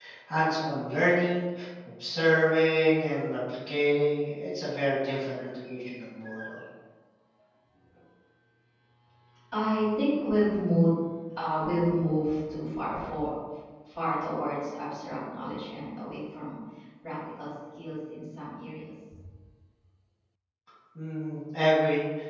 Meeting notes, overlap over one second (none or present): none